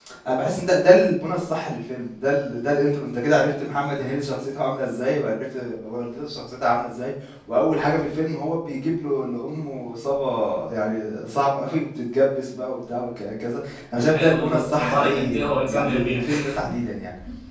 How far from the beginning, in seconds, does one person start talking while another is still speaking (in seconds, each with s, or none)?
14.1 s